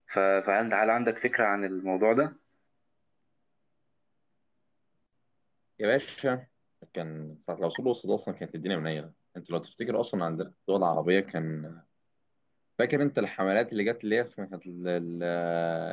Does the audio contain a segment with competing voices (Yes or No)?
No